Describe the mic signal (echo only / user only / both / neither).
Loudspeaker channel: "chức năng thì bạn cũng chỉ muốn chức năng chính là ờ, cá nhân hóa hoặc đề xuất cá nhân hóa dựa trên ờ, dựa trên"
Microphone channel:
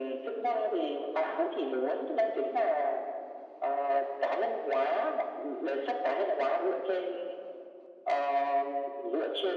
echo only